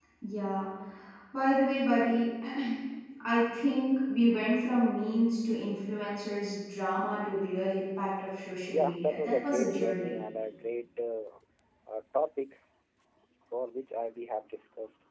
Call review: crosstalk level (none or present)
present